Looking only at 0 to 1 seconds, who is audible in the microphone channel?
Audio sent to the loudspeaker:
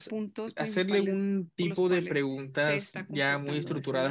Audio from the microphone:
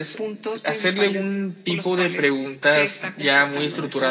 echo only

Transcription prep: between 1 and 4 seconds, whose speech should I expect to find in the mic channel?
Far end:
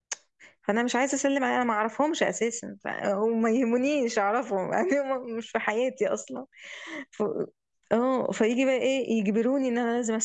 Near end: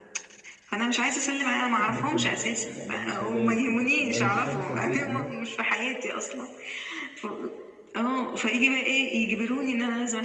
both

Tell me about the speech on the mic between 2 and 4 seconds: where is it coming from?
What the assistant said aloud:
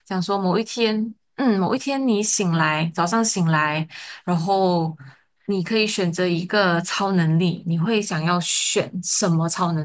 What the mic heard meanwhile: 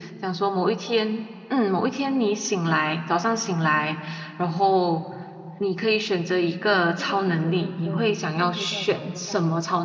echo only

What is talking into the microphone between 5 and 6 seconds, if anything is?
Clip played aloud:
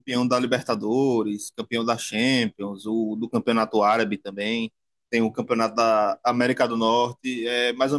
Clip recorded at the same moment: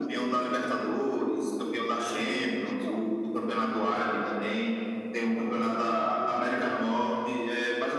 both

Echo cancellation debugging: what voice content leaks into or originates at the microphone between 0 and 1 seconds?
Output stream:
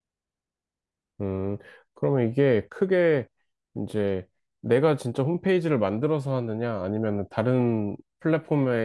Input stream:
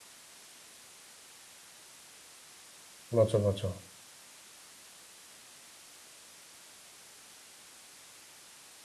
neither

